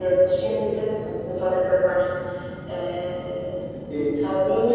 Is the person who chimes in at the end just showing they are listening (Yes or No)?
Yes